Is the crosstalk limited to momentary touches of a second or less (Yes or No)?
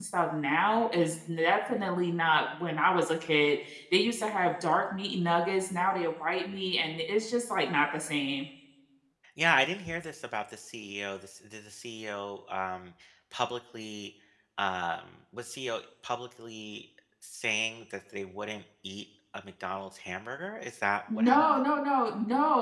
Yes